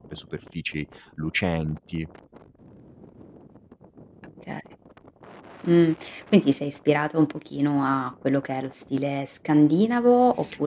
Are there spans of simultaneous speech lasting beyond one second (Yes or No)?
No